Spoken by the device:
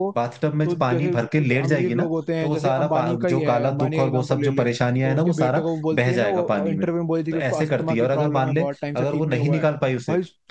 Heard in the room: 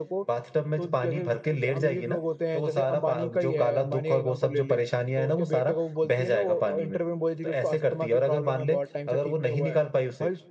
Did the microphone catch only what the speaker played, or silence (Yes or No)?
Yes